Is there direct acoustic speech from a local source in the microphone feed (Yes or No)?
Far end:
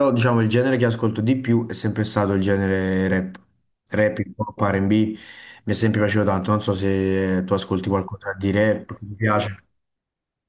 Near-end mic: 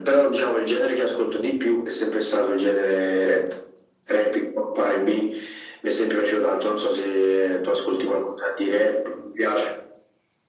No